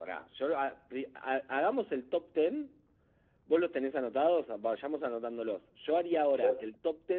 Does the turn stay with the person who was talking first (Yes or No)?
Yes